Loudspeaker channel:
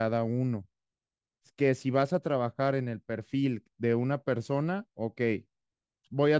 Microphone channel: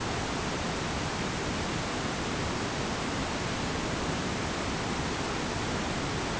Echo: none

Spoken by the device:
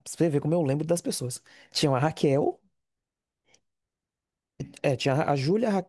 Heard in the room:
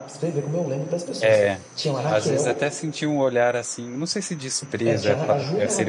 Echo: present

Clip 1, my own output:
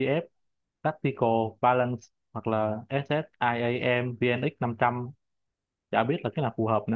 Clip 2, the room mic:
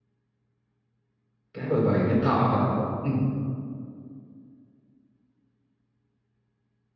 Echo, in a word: none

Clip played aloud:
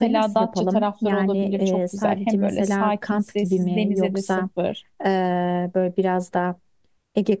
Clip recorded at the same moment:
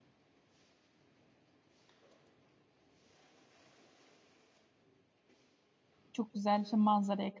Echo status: none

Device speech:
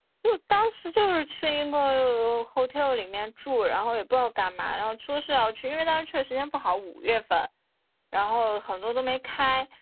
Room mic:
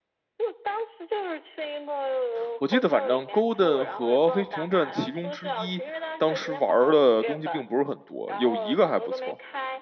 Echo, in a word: present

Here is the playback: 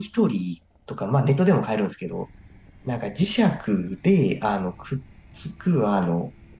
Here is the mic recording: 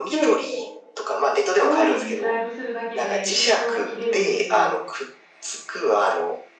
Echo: present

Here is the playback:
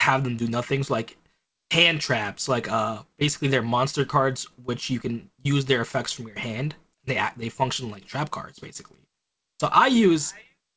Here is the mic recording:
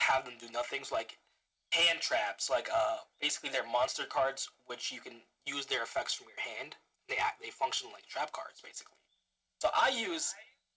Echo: present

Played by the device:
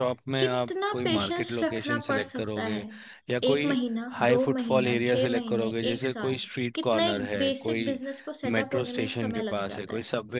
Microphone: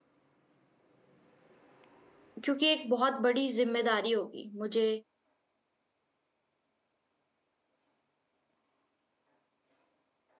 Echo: none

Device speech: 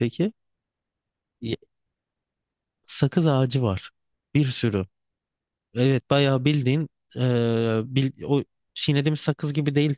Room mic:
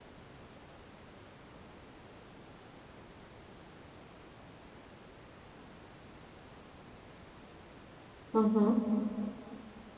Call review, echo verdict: none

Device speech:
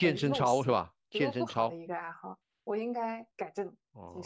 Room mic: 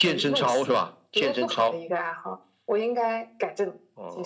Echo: present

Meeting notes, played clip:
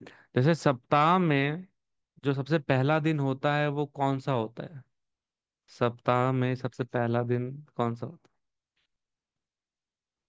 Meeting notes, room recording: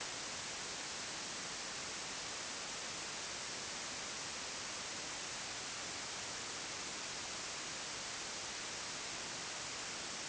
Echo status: none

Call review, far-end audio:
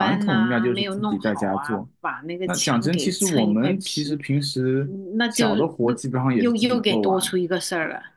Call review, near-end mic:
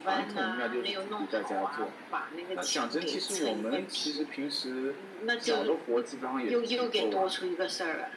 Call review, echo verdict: present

